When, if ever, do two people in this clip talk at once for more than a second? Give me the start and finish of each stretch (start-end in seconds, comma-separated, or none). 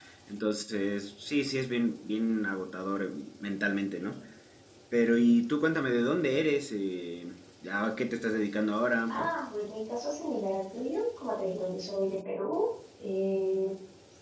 none